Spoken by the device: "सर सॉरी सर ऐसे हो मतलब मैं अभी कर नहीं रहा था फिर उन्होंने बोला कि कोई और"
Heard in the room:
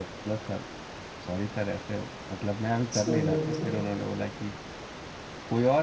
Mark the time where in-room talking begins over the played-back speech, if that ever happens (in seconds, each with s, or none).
2.9 s